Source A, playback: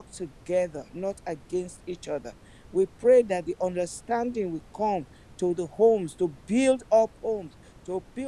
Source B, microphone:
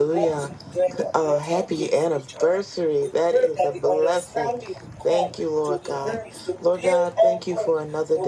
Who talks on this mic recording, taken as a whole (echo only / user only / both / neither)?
both